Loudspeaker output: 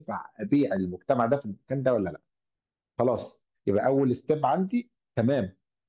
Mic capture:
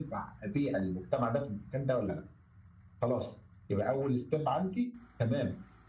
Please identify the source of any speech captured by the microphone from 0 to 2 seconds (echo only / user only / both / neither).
echo only